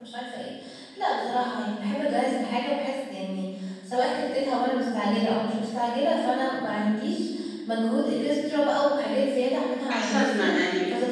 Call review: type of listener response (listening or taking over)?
taking over